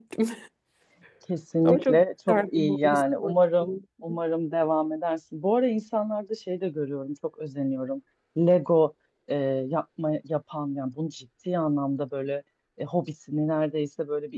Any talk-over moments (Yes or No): Yes